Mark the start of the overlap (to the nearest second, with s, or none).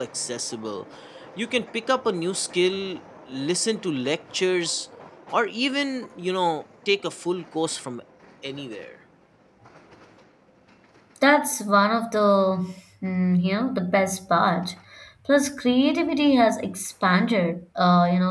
none